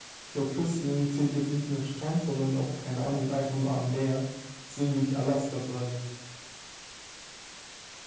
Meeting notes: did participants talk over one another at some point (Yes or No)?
No